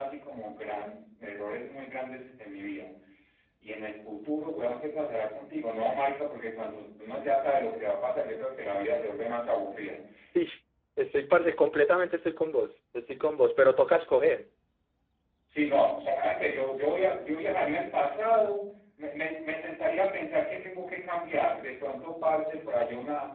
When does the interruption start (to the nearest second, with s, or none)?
none